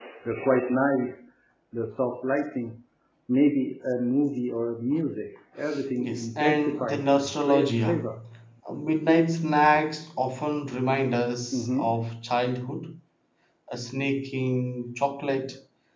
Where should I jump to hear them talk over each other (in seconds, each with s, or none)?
6.0 s